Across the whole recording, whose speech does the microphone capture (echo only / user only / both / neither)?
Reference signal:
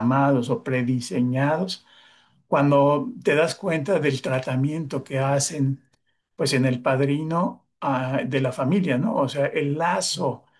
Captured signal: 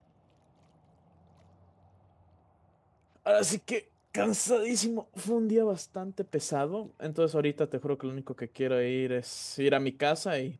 user only